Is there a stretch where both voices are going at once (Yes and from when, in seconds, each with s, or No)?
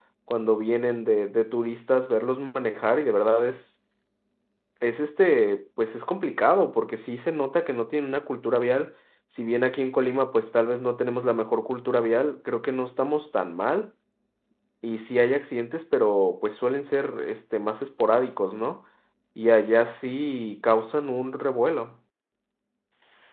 No